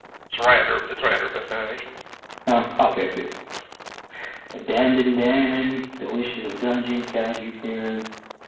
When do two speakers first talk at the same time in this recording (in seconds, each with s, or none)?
none